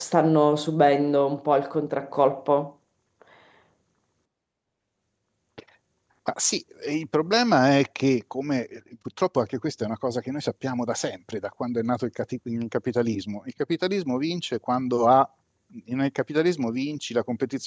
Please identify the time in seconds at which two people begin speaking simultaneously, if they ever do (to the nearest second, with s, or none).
none